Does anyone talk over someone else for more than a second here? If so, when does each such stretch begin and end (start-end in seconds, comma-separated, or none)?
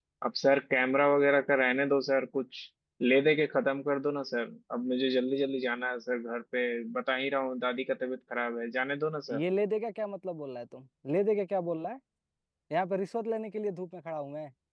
none